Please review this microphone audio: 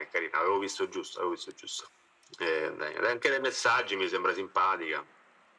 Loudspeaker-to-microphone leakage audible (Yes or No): Yes